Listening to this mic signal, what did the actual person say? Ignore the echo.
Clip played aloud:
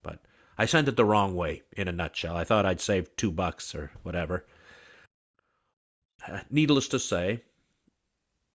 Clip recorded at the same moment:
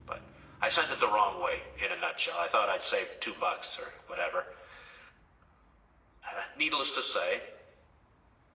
none

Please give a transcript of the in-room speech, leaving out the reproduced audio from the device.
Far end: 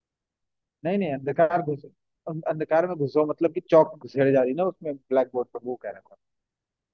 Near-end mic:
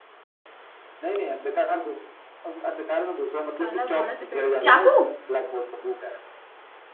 काला घोड़ा सफेद चाकू

